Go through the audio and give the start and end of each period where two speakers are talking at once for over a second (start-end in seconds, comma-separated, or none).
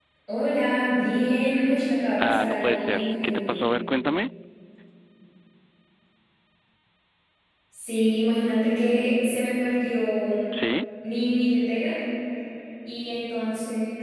2.2-3.6